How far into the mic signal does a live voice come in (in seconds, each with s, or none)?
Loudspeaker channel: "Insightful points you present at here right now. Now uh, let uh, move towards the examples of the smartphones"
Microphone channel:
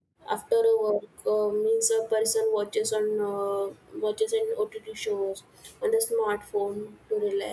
0.3 s